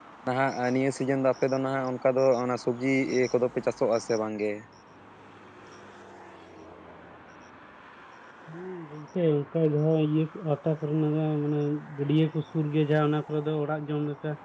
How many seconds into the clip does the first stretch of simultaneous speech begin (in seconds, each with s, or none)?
none